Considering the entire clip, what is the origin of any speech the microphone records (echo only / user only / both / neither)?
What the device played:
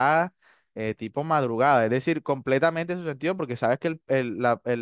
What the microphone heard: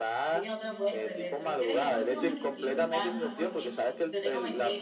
both